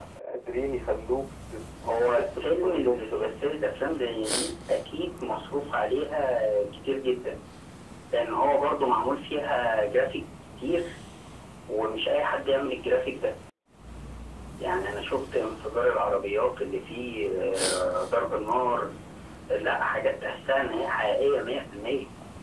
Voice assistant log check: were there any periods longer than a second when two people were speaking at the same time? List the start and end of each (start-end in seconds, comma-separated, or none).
2.0-3.3